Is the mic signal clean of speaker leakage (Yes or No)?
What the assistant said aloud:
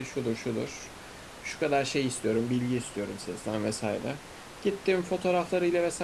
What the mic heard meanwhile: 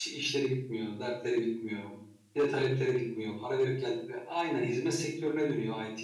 Yes